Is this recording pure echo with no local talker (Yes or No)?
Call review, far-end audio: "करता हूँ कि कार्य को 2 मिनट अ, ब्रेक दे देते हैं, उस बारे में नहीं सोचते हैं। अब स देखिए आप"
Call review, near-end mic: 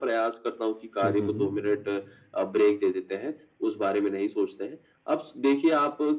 No